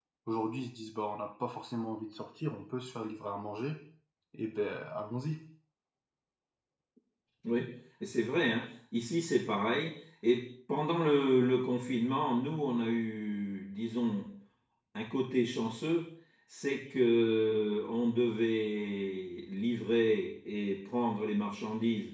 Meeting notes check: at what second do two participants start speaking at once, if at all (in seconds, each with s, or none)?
none